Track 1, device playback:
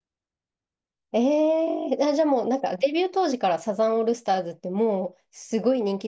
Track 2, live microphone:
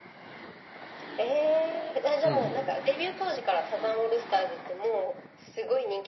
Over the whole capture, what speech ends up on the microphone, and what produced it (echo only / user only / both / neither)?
both